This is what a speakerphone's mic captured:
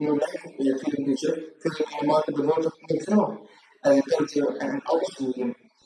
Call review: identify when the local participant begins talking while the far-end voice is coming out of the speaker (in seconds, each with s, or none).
none